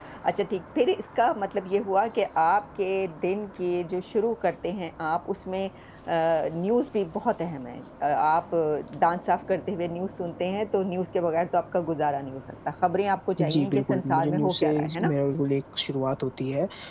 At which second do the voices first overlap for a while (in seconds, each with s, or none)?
13.4 s